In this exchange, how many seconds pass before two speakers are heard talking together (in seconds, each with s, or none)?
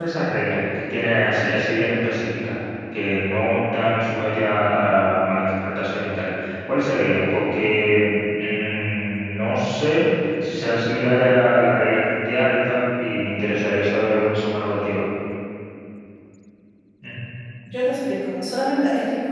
none